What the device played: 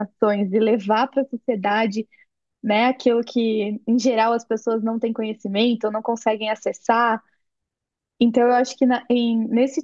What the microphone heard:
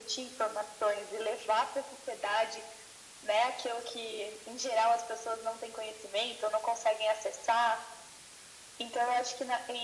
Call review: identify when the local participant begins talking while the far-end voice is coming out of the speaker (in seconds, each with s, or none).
none